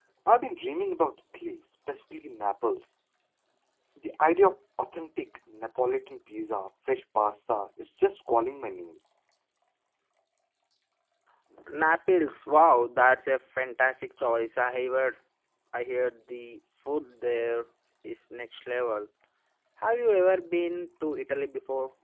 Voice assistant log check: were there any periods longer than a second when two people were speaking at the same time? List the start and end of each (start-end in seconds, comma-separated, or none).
none